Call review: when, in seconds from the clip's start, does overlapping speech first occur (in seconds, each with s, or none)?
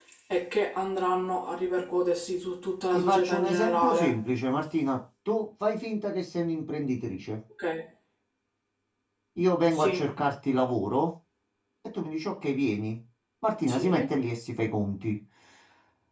2.9 s